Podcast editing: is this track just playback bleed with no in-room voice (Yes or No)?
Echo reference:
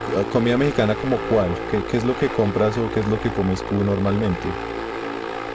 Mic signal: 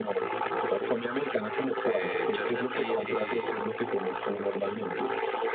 No